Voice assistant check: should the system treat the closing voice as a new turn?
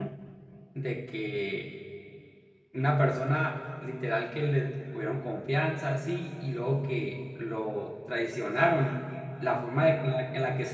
No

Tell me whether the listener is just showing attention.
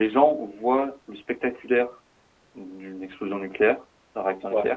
Yes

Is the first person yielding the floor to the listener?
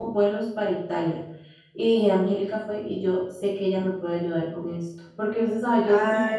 No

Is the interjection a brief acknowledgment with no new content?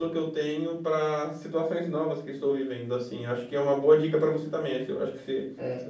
No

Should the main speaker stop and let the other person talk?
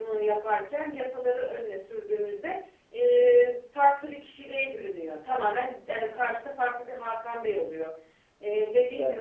Yes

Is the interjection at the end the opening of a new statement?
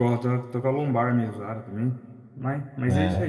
No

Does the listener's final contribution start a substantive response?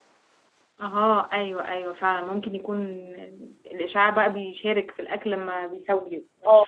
Yes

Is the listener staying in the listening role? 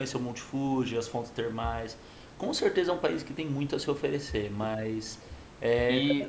No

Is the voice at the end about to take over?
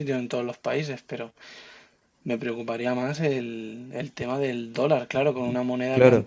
Yes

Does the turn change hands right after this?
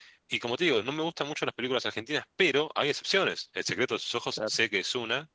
No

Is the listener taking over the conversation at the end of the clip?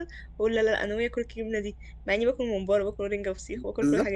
Yes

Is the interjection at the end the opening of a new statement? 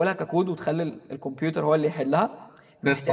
No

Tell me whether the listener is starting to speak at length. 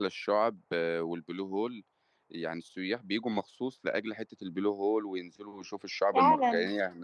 No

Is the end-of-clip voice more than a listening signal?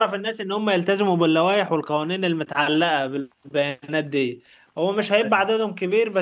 No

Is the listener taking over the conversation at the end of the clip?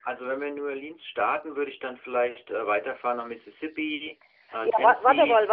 Yes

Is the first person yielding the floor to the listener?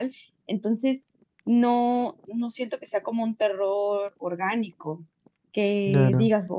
No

